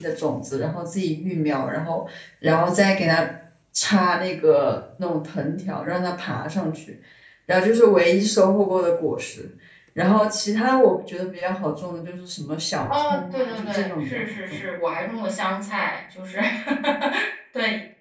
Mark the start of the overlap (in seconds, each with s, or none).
12.9 s